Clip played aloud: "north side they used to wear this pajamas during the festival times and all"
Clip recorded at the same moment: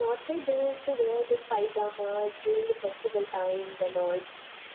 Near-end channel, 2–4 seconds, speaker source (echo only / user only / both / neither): echo only